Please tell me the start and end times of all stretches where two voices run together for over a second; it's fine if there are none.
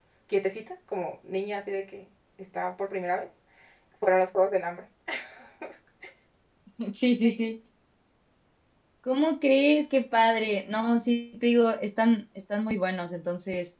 none

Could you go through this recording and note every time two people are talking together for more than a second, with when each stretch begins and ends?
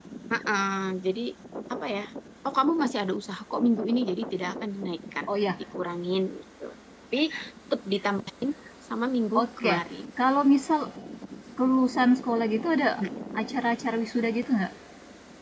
none

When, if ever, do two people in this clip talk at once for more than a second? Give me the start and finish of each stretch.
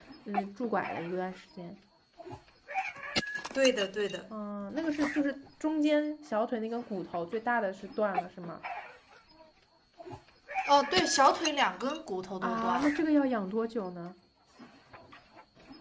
none

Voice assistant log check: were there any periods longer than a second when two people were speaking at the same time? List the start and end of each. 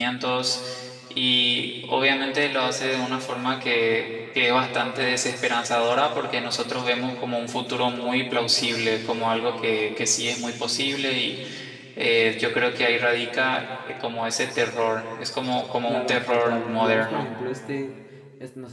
15.9-17.2

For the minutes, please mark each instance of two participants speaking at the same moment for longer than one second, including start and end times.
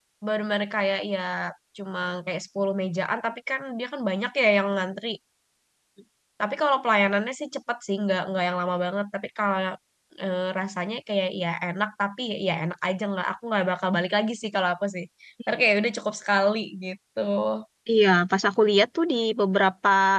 none

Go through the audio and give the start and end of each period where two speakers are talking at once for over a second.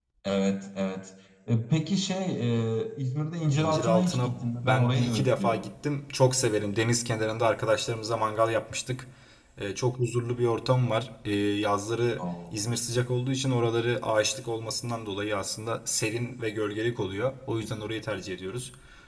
3.5-5.7

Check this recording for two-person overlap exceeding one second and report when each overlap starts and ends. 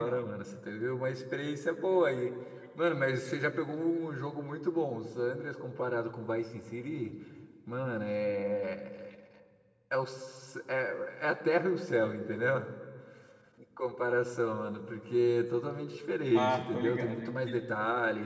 16.3-17.6

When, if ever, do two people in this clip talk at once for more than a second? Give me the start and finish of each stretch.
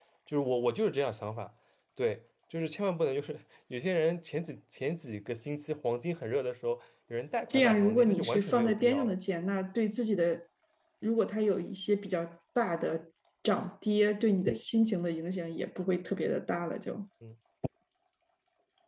7.5-9.1

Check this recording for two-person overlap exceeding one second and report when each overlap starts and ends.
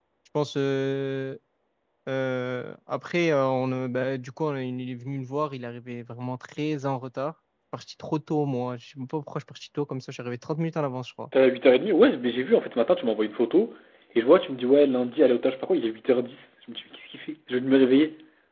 none

